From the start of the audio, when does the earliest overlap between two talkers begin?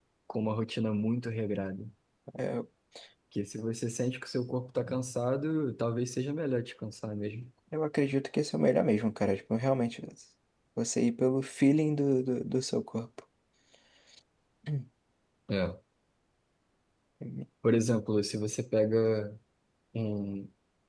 none

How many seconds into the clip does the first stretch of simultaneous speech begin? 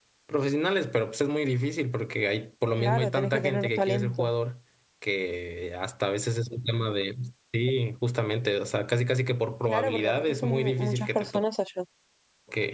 2.8 s

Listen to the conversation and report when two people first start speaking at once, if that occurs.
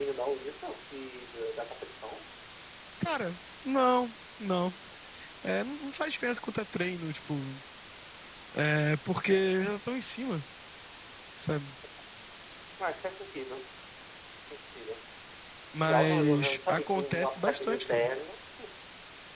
15.8 s

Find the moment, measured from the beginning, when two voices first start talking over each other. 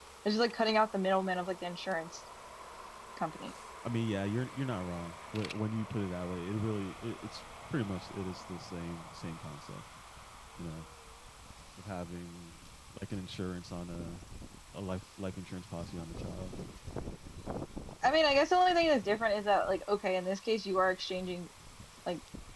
none

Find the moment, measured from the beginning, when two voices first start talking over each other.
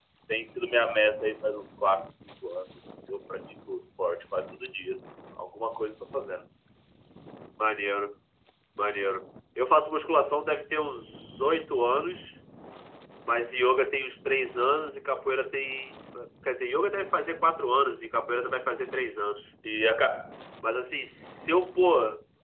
none

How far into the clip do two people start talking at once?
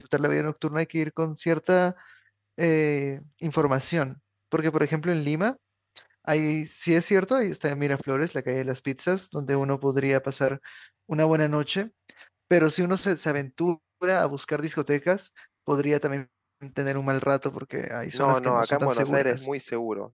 18.1 s

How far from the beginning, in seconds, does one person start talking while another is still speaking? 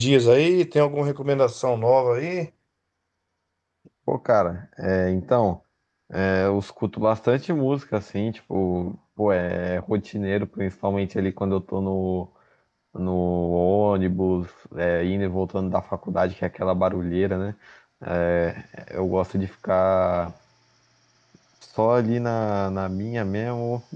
none

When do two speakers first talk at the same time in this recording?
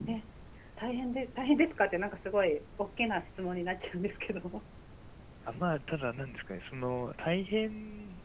none

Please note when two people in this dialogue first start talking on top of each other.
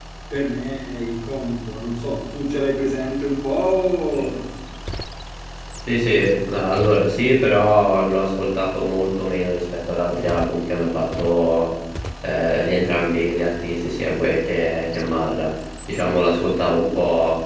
none

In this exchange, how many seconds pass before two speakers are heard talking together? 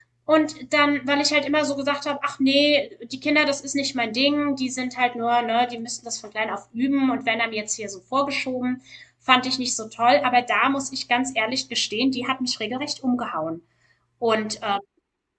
none

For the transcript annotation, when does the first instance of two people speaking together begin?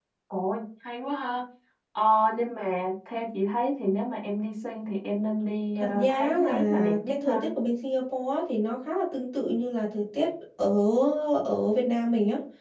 5.8 s

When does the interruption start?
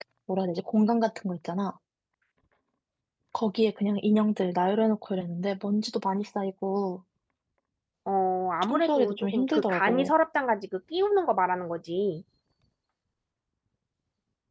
8.6 s

